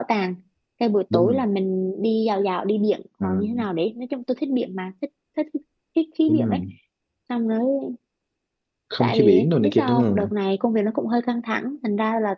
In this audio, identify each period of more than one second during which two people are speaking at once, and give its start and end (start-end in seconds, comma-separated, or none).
9.0-10.3